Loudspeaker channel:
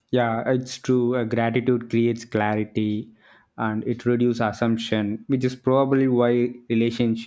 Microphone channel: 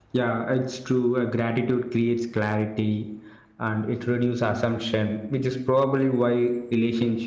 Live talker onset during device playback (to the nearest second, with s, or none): none